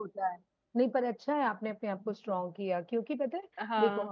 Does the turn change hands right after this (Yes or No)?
No